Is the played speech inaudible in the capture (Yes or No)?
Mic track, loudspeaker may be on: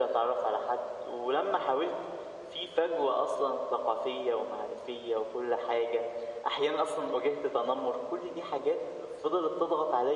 No